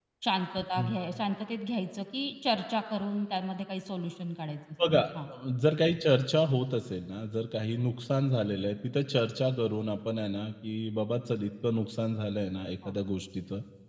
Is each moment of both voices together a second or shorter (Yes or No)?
Yes